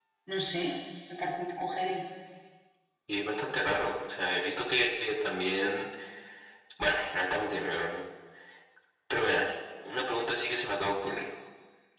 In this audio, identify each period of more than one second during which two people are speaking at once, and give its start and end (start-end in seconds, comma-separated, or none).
none